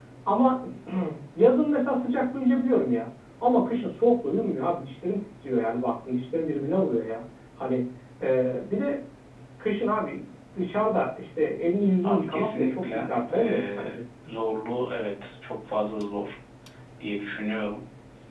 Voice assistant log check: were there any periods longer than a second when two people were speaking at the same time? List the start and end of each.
12.0-13.9

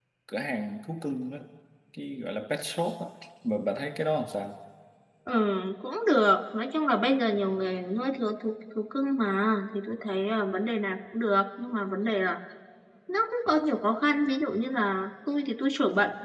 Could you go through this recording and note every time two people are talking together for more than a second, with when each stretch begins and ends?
none

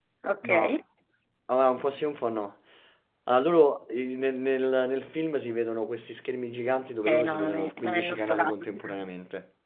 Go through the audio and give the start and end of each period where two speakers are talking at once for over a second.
7.1-9.0

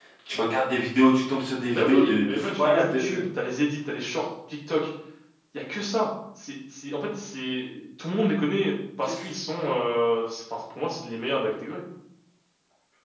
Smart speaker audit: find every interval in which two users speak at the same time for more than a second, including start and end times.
1.7-3.2

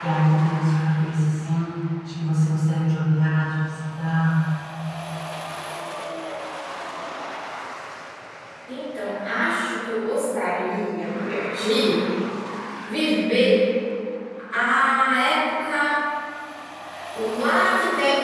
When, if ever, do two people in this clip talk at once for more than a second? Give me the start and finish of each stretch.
none

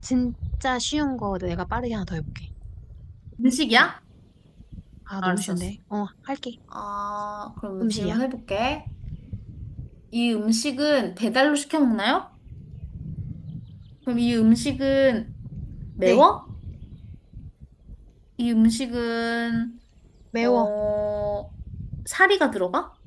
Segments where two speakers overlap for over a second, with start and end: none

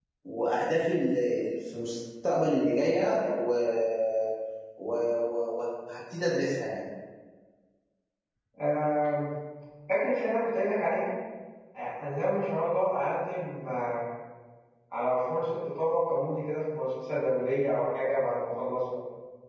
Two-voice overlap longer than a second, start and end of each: none

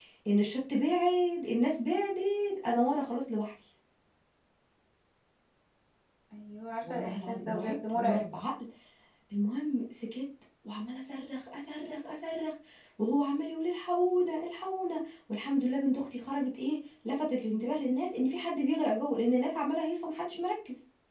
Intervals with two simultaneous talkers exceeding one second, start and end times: 6.8-8.3

